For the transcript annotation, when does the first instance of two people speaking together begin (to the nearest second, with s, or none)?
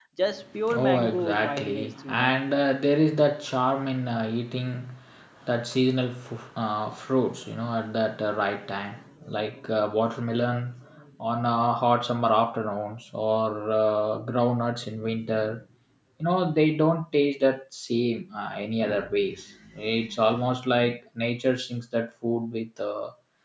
1 s